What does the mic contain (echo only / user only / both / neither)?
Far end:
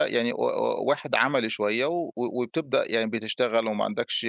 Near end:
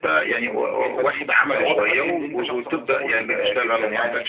both